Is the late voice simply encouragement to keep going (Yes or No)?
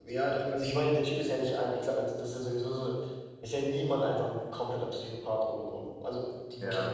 Yes